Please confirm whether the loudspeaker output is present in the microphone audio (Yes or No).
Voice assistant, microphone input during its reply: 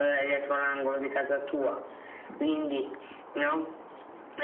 Yes